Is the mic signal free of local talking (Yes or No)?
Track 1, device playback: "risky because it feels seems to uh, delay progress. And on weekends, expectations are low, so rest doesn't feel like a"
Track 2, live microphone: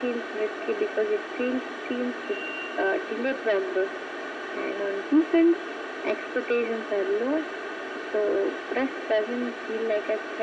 Yes